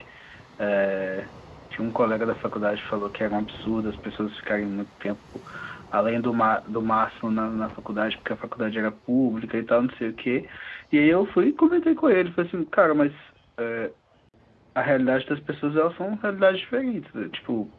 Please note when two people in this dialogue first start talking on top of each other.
none

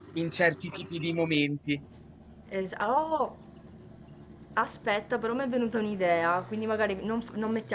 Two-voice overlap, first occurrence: none

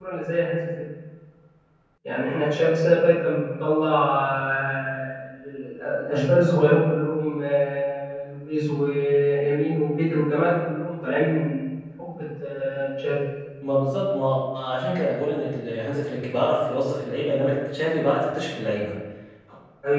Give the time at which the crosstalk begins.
none

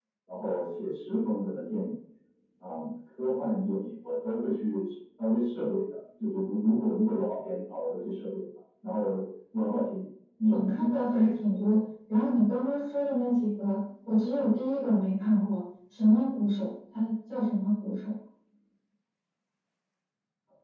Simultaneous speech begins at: 10 s

